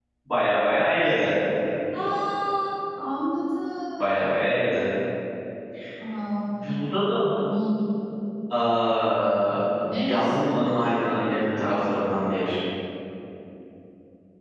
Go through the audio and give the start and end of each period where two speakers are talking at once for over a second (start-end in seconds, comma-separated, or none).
none